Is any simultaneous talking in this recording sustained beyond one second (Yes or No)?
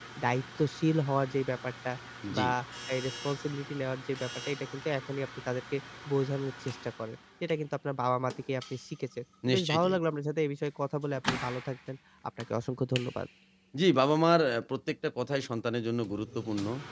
No